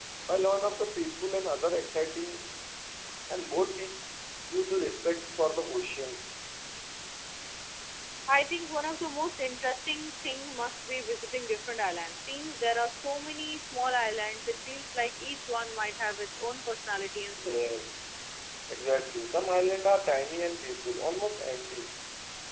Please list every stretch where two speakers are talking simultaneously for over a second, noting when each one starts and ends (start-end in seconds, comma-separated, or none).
none